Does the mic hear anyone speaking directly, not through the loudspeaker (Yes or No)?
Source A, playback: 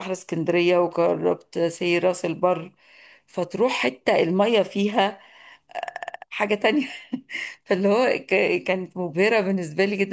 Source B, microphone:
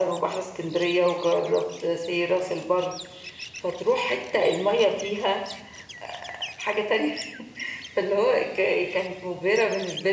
No